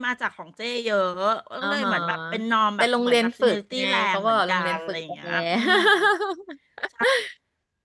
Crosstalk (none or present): present